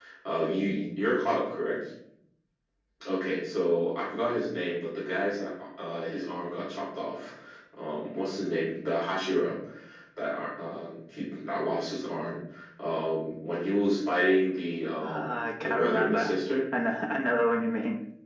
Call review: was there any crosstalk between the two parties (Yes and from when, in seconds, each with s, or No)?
Yes, from 15.0 s